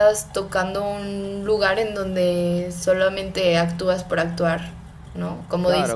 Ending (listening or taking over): taking over